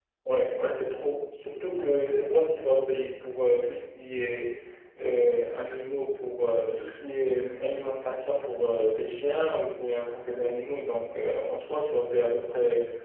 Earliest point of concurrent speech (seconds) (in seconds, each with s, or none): none